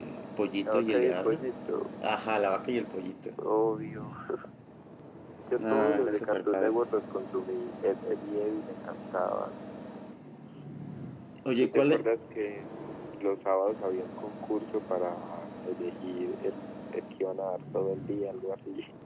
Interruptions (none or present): present